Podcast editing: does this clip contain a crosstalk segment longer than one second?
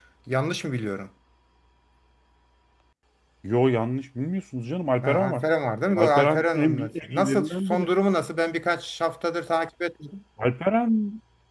Yes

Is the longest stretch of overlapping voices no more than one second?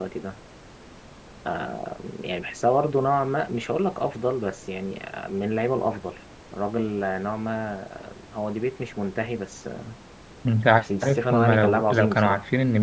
No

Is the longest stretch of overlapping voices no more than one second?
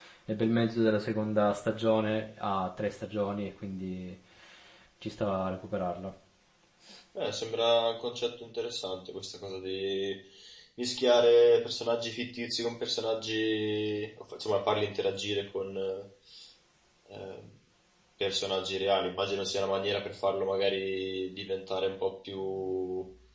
Yes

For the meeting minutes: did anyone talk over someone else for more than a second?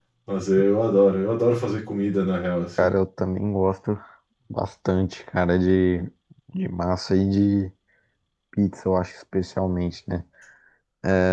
No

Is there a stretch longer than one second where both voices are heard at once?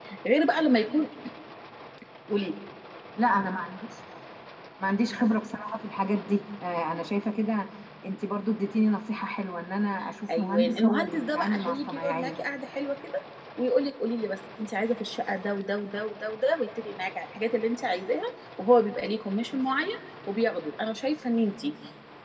Yes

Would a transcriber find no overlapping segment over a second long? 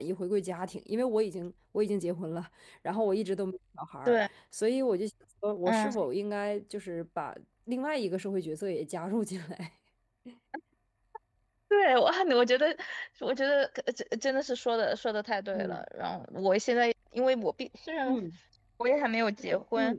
Yes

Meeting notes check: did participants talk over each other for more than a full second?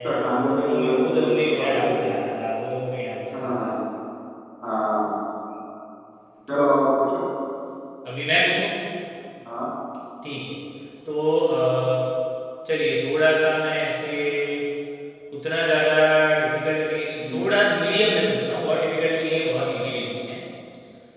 Yes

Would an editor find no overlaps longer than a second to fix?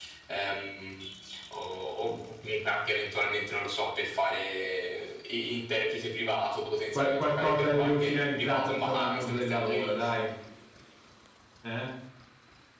No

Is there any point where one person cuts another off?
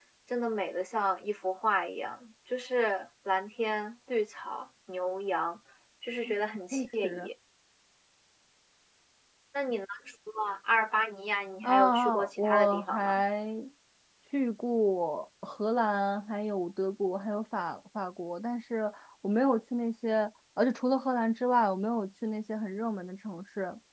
Yes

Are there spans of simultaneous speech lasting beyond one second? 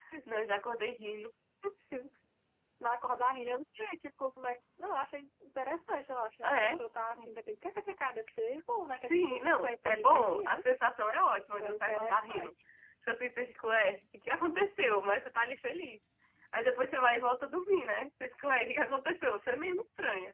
Yes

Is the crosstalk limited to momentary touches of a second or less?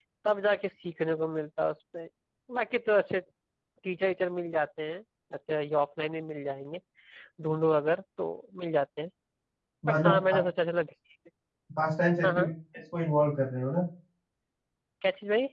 Yes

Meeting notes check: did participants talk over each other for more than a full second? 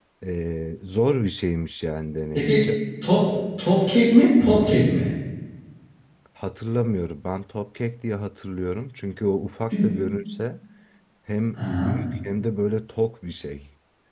No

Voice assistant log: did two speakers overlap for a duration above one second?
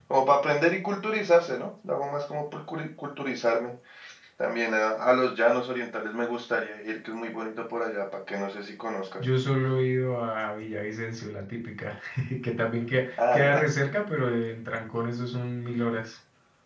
No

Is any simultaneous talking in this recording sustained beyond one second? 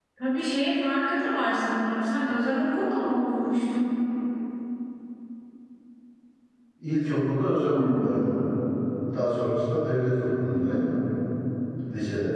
No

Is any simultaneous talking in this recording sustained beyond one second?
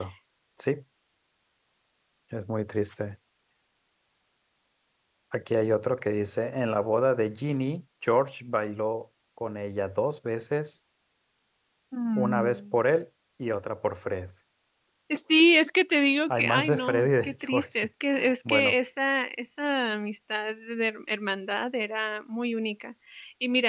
Yes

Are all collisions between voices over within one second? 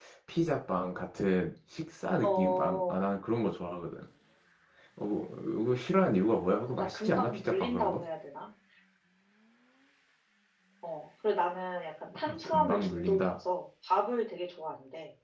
No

